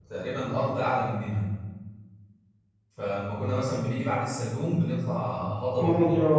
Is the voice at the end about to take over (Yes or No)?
No